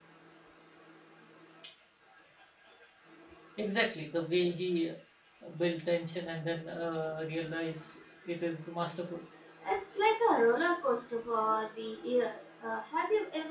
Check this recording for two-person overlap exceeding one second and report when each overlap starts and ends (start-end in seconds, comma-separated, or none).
none